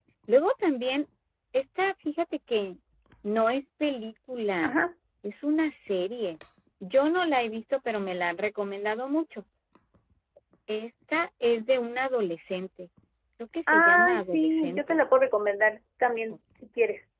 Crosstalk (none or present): present